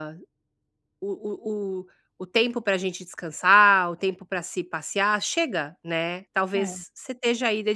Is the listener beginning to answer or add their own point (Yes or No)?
No